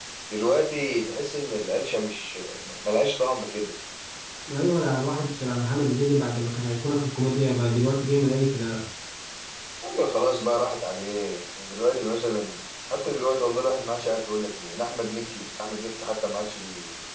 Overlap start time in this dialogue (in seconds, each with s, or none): none